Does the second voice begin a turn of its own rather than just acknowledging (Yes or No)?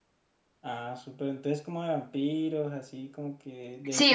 Yes